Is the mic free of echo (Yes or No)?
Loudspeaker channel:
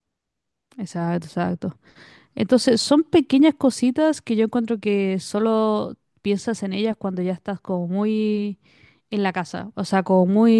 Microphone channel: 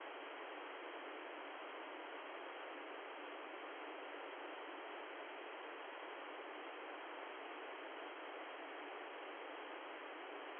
Yes